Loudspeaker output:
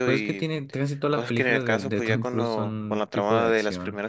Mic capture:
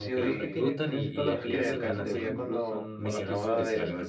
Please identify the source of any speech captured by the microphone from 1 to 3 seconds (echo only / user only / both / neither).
both